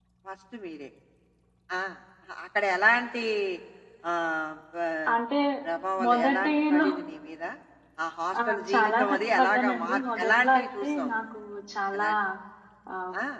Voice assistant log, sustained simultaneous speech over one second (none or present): present